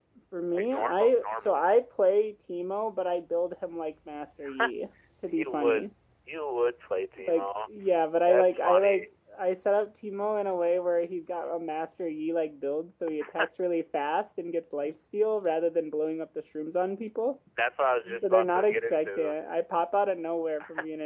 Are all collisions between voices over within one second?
No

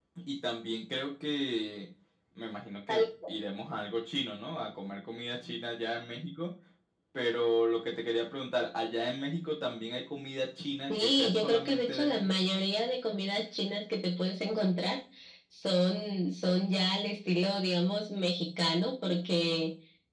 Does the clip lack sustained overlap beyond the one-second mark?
No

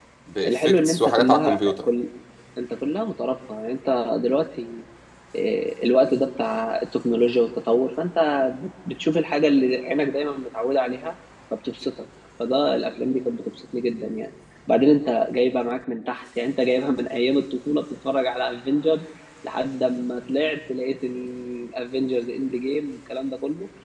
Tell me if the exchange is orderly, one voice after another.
No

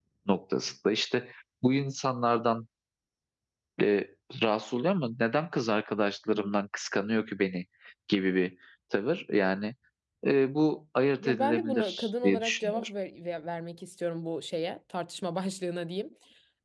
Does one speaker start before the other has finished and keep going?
Yes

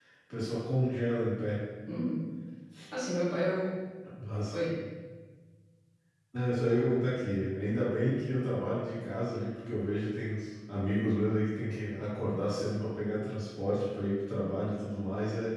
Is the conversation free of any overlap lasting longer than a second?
Yes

